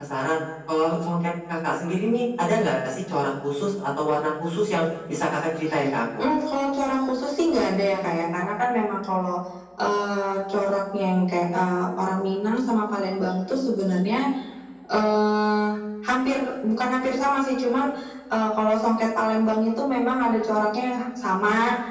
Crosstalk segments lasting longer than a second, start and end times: none

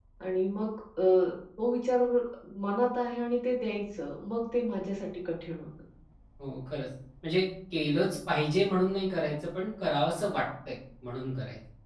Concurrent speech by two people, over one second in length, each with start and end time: none

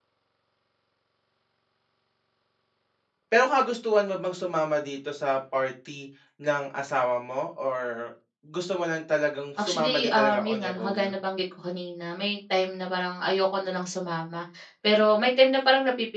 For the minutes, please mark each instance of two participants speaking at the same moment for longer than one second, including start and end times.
9.6-11.0

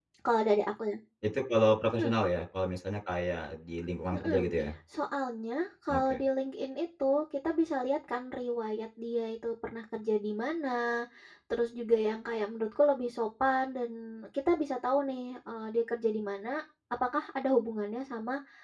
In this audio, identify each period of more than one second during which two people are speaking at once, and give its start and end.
none

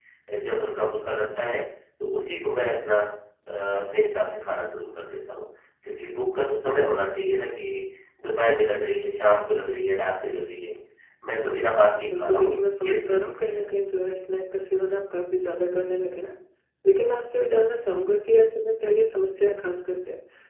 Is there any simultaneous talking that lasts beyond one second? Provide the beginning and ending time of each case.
12.1-13.6

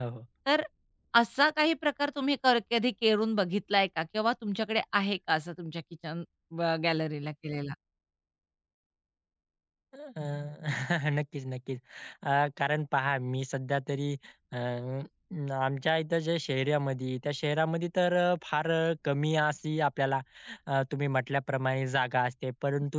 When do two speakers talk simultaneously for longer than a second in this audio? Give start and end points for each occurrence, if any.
none

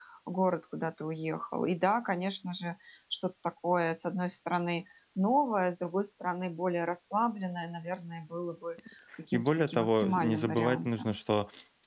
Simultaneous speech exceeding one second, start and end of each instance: 9.3-11.2

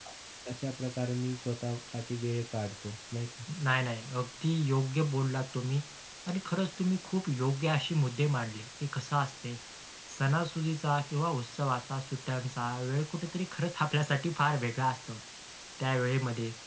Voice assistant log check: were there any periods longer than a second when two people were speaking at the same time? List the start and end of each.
none

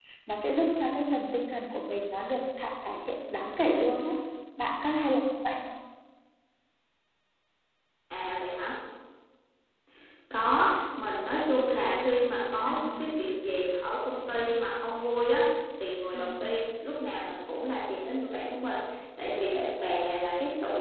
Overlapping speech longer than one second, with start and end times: none

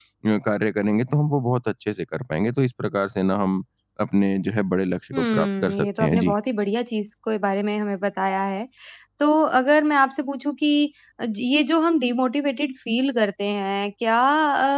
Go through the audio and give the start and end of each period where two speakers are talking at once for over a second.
5.1-6.3

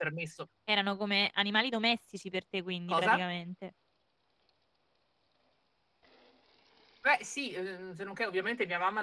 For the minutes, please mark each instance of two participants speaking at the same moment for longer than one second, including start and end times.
none

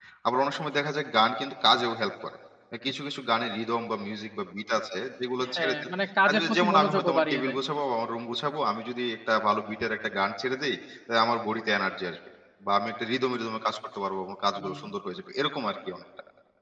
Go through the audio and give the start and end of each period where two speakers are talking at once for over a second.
6.2-7.6

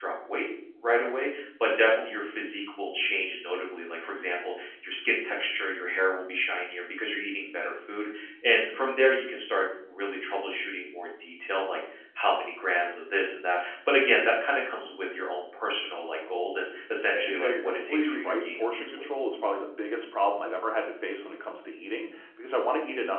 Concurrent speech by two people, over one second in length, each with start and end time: 17.1-19.1

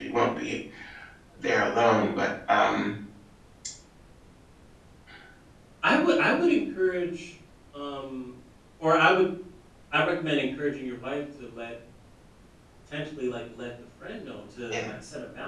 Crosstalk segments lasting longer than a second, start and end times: none

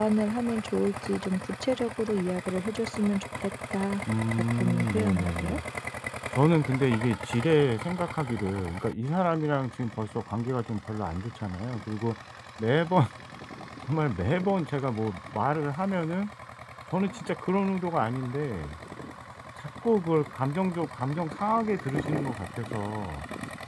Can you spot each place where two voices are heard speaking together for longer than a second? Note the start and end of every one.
4.3-5.6

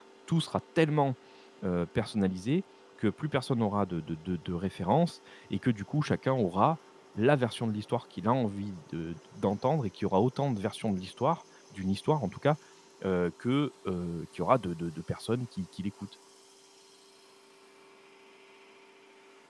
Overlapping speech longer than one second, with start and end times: none

